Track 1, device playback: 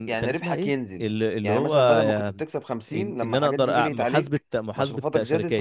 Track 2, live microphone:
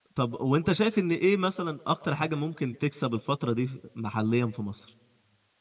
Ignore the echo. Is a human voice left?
Yes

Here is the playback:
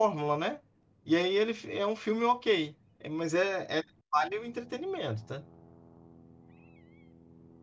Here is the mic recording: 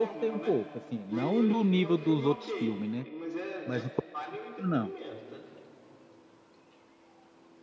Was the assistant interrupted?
Yes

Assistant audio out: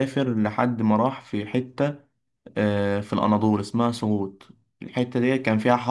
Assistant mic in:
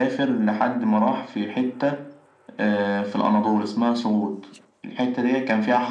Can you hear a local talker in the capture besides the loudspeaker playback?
No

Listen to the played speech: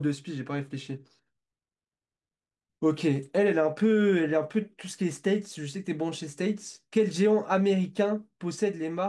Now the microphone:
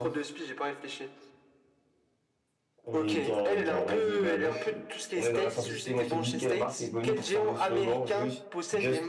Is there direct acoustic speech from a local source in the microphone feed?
Yes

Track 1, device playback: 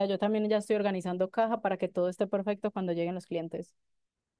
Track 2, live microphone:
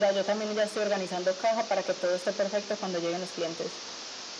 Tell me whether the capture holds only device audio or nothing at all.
Yes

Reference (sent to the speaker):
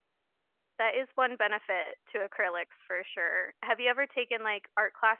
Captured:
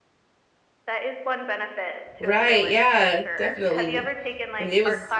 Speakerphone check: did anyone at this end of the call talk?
Yes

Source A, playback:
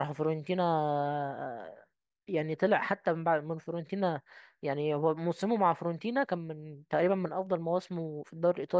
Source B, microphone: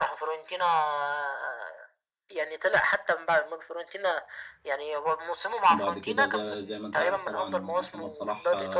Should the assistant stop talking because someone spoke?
Yes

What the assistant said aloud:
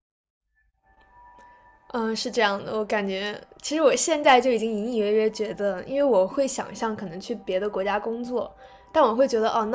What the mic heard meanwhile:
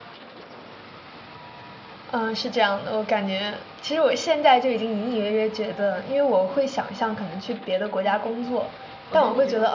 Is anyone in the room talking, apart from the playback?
Yes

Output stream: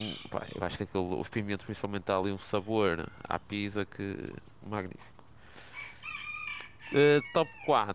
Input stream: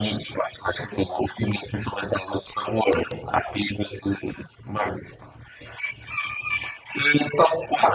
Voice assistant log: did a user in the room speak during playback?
No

